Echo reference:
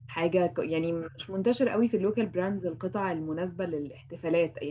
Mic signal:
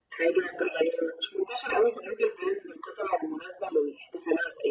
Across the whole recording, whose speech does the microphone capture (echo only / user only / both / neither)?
echo only